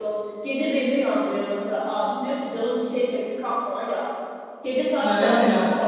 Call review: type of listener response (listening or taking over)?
listening